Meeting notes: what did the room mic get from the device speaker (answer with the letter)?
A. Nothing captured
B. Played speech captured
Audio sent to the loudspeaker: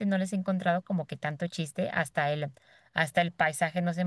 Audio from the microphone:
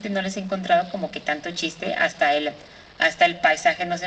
B